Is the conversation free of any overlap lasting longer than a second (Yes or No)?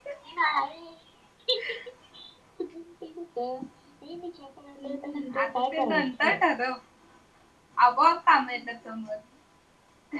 No